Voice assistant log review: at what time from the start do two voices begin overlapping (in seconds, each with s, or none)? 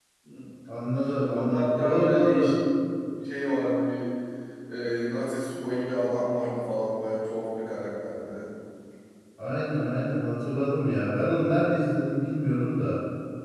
1.3 s